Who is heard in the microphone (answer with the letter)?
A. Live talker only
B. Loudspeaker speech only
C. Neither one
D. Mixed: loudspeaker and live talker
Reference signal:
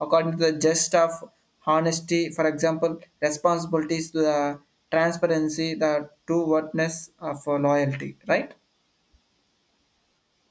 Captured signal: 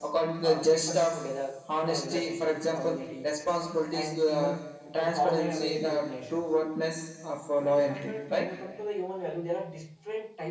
D